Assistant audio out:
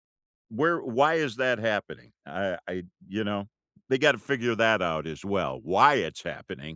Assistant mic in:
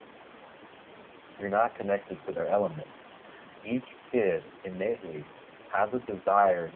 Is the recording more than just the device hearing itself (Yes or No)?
Yes